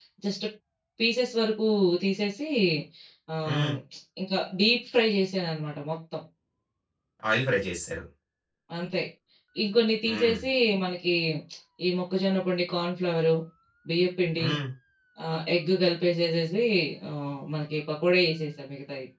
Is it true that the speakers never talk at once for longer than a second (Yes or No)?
Yes